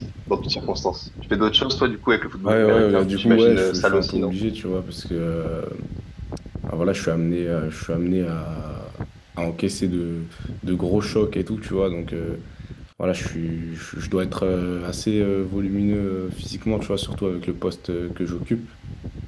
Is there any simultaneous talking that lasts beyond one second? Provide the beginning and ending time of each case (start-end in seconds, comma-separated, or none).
2.5-4.3